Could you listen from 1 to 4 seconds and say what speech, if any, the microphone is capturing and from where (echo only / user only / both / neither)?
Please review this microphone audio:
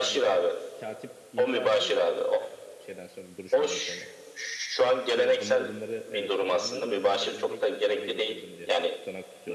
both